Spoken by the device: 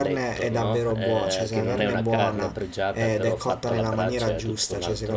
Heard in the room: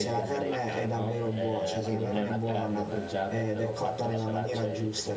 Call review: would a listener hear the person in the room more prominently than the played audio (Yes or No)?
No